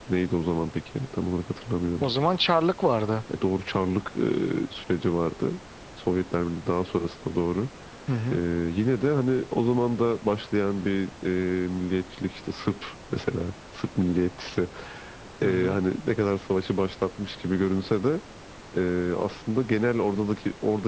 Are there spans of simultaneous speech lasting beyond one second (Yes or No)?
No